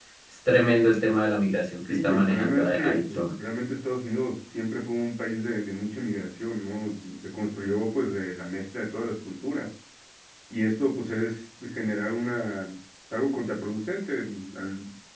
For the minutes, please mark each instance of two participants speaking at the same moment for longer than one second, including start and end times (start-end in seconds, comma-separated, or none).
1.9-3.3